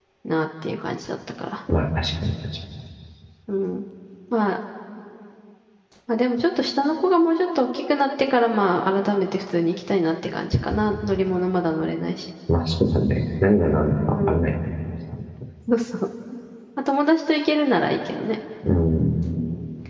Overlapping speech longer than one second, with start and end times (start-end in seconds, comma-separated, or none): none